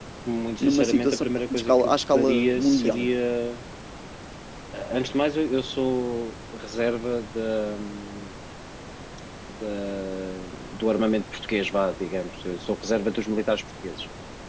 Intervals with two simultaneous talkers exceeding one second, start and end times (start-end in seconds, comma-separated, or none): 0.6-3.1